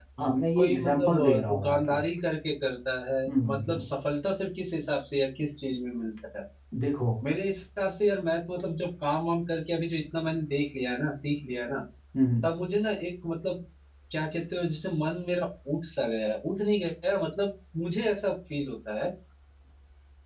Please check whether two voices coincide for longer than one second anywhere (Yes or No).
Yes